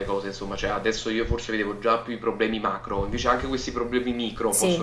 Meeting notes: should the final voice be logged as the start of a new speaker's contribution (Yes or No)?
Yes